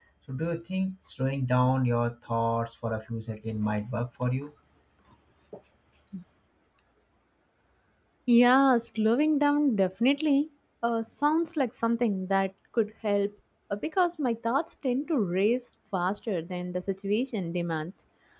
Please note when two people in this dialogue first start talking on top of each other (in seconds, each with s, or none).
none